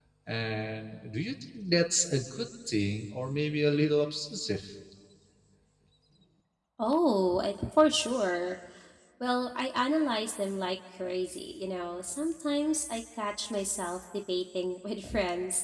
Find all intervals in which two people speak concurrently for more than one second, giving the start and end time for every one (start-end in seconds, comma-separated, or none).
none